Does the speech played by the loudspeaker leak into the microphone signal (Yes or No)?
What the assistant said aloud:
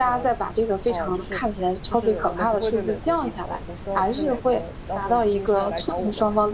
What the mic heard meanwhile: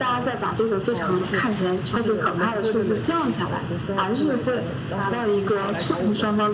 Yes